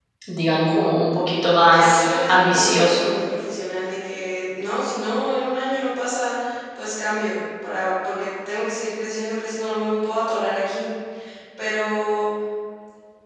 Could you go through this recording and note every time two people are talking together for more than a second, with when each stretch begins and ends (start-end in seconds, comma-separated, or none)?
1.7-3.1